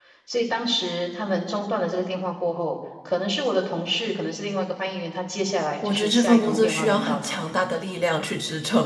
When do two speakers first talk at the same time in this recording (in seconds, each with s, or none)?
5.8 s